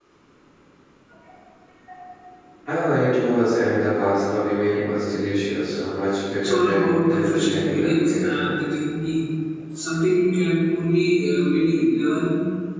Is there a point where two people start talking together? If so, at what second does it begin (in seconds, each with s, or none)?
6.4 s